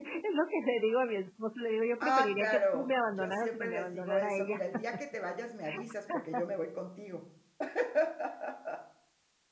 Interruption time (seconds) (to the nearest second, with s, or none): 2 s